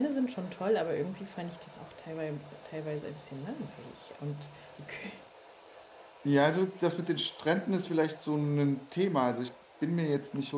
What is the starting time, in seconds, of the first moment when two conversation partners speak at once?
none

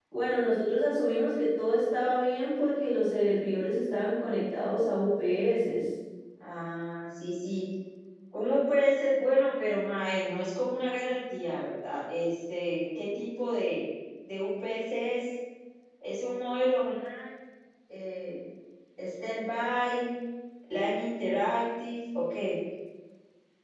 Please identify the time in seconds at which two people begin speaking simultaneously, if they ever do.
none

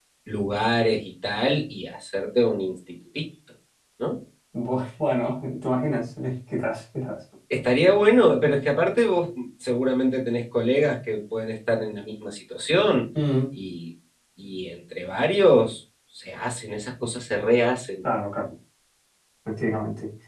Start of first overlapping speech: none

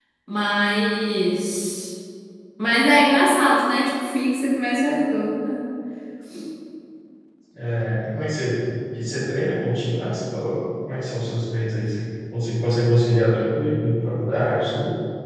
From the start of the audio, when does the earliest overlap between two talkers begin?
none

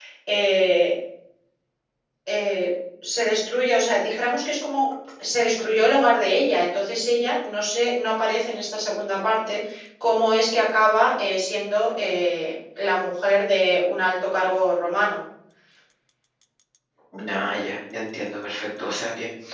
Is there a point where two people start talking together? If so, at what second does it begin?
none

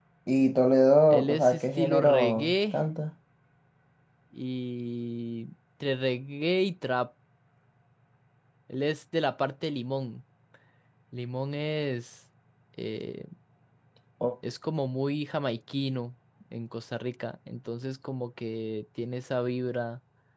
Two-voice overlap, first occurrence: 1.1 s

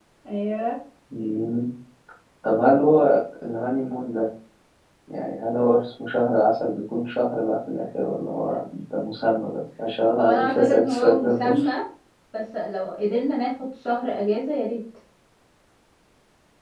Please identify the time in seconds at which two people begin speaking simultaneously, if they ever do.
10.2 s

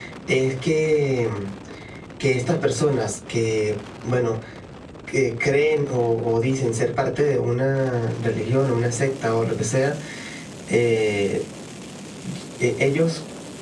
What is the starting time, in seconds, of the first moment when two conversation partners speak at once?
none

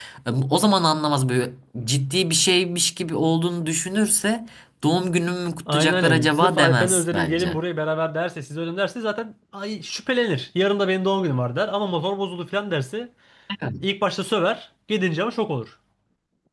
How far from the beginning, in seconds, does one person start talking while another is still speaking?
5.7 s

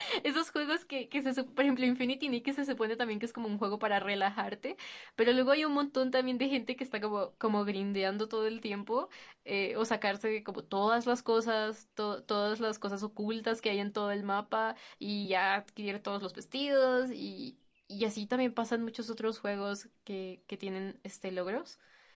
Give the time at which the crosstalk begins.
none

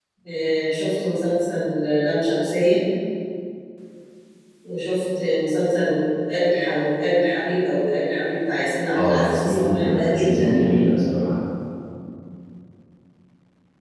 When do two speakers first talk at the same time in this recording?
8.9 s

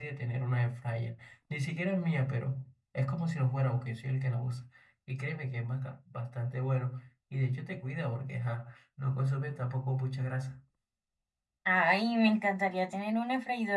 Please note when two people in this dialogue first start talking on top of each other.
none

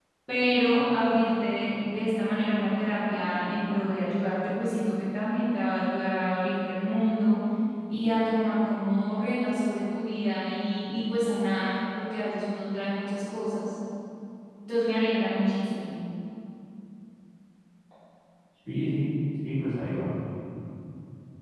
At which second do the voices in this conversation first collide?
none

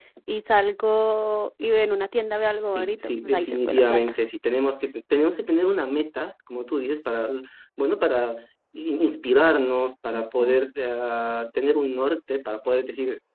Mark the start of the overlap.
2.7 s

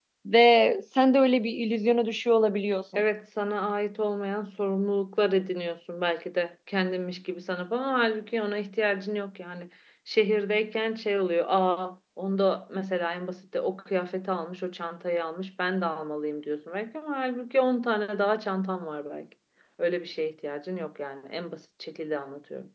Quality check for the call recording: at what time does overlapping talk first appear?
none

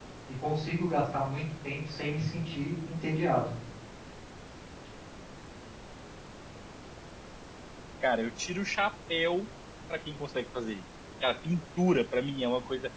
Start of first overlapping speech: none

